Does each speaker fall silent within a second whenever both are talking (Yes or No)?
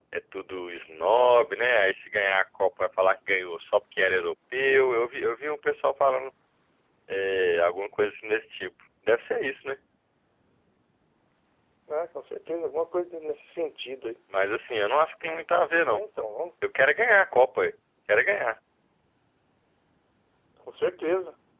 Yes